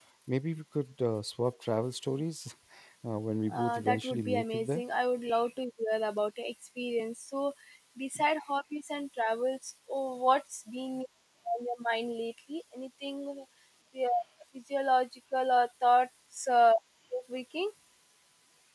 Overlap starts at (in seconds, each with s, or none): 3.5 s